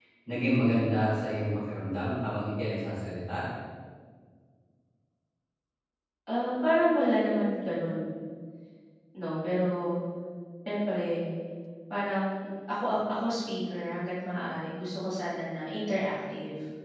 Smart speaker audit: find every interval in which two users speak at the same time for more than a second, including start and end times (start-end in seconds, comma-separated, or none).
none